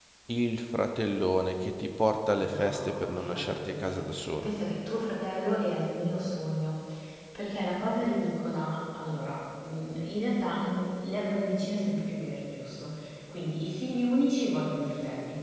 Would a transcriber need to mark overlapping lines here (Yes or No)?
Yes